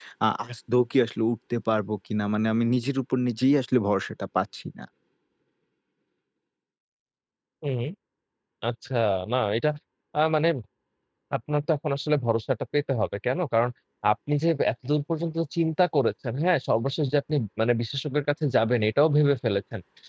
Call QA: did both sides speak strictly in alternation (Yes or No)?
Yes